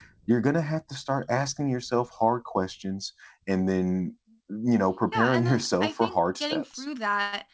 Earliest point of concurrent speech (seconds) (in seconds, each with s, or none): 5.1 s